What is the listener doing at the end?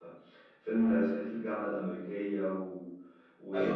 taking over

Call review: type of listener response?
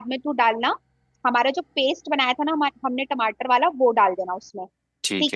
taking over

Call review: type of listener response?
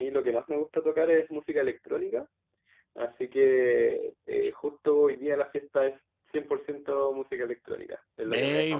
taking over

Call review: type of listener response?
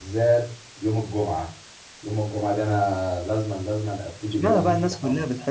taking over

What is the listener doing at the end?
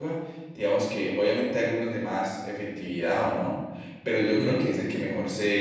listening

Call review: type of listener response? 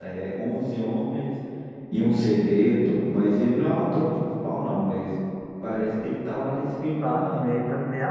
taking over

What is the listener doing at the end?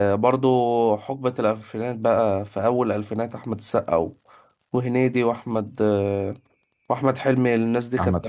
taking over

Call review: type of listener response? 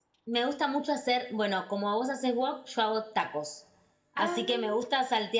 listening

